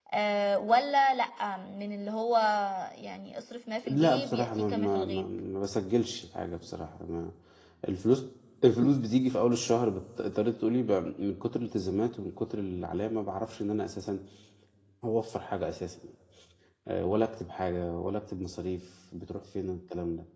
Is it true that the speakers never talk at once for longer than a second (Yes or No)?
No